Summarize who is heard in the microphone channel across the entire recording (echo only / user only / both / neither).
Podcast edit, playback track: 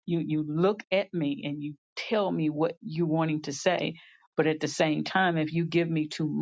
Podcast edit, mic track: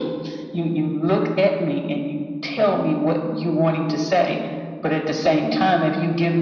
echo only